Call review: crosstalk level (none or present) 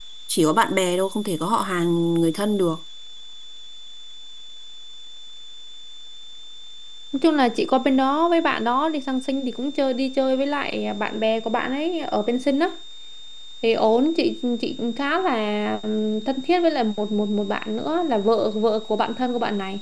none